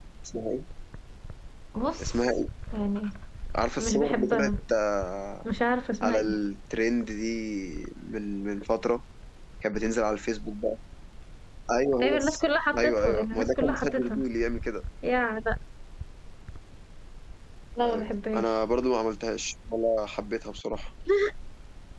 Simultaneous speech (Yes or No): Yes